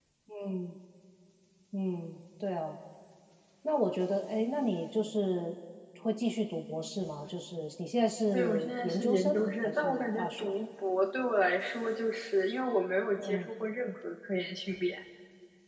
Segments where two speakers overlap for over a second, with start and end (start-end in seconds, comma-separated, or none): 8.3-10.5